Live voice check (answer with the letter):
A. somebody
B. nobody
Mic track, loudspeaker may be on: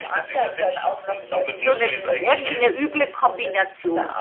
A